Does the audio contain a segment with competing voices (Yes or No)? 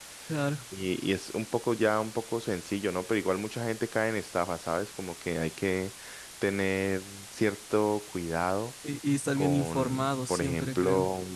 Yes